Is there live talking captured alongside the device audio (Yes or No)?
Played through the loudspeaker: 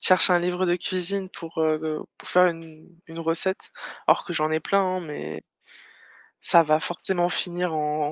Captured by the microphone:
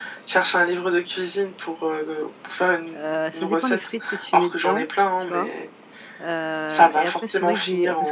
Yes